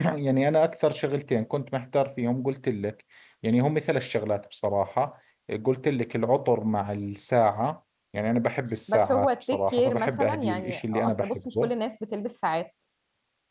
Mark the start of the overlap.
8.9 s

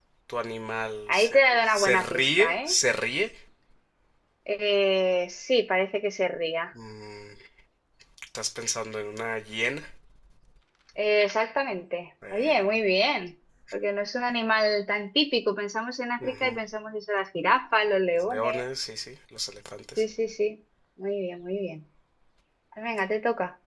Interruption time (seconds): 1.1 s

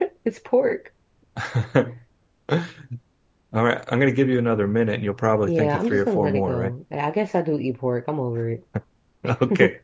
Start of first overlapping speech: 5.5 s

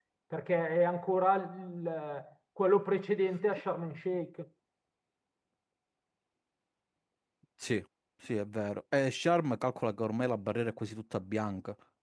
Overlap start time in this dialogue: none

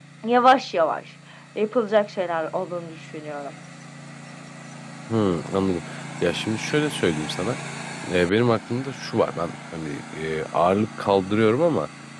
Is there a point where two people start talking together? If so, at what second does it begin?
none

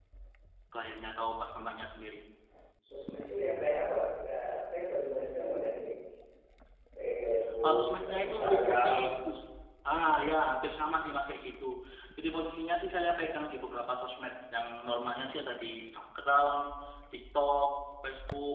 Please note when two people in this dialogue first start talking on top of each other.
7.6 s

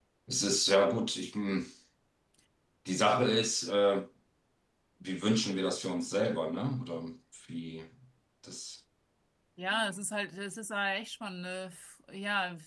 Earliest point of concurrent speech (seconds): none

